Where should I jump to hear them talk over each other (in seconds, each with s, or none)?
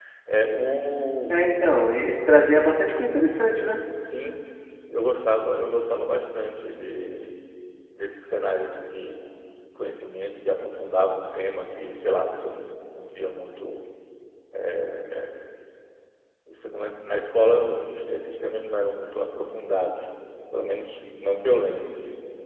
none